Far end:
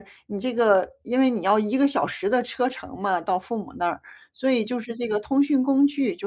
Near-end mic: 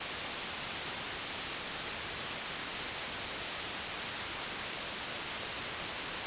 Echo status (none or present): none